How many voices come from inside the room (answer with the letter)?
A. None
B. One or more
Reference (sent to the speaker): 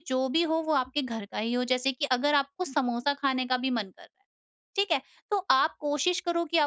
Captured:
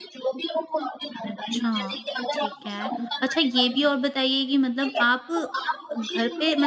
B